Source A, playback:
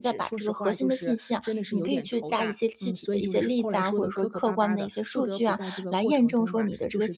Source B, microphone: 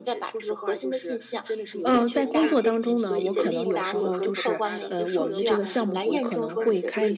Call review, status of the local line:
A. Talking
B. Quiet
A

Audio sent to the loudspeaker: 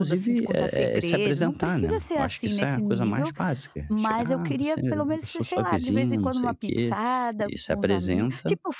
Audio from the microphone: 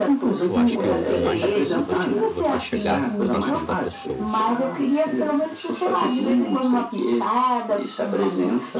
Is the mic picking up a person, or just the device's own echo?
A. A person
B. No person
A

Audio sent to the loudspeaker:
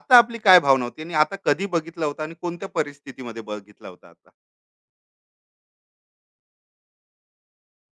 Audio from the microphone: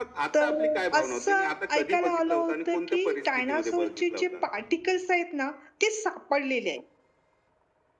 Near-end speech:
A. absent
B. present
B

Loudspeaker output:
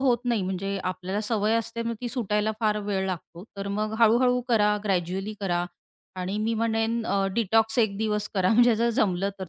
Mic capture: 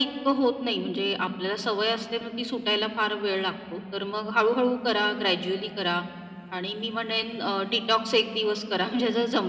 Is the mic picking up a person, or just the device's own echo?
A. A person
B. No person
B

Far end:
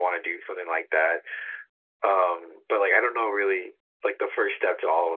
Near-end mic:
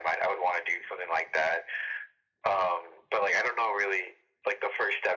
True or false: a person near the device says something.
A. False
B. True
A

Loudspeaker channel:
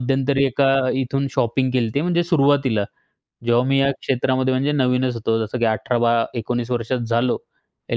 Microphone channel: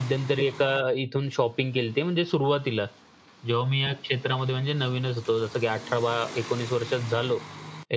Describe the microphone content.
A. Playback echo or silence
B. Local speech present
A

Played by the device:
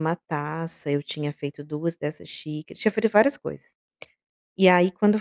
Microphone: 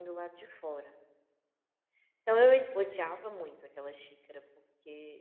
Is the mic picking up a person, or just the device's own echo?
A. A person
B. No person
A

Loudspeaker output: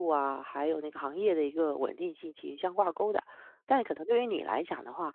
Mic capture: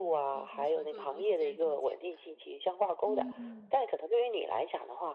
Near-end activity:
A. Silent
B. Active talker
B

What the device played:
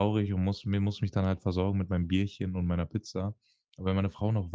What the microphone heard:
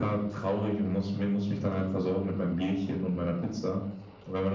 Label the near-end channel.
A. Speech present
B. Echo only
B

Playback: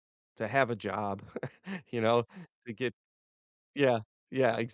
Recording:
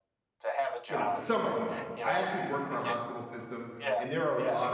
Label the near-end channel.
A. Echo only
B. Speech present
B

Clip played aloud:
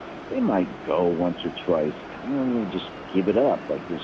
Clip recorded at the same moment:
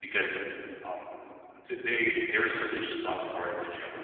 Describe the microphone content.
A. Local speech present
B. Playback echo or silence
A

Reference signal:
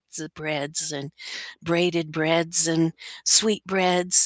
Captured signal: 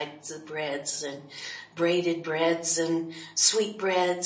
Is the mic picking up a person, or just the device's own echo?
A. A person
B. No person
B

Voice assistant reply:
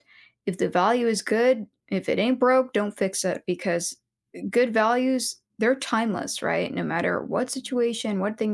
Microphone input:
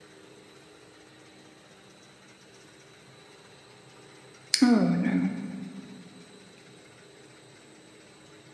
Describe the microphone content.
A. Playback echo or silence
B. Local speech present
B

